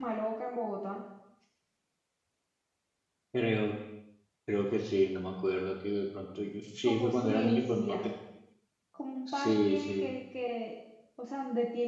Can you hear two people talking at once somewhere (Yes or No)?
Yes